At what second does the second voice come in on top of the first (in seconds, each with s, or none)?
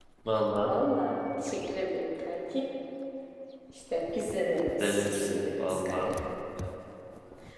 4.8 s